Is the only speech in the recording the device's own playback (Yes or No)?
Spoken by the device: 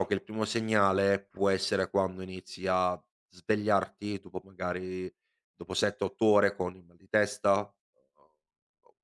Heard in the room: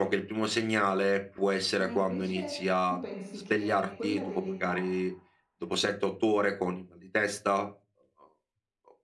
No